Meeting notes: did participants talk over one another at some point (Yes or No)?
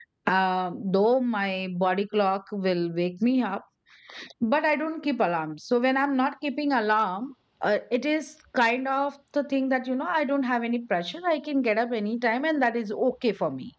No